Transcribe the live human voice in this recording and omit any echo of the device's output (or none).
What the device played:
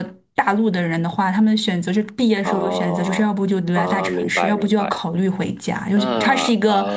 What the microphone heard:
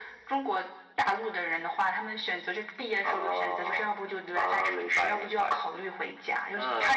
none